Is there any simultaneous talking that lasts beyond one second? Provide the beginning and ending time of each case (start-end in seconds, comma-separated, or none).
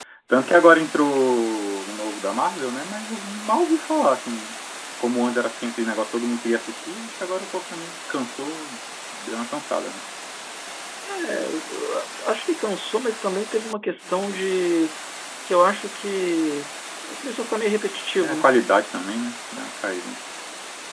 none